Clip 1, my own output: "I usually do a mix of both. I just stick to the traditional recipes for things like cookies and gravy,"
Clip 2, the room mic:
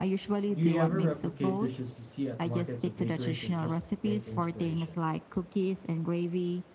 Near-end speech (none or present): present